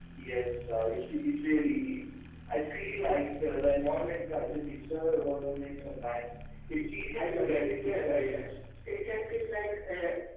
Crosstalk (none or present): present